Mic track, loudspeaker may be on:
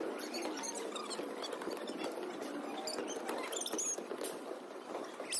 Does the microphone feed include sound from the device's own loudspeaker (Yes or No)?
No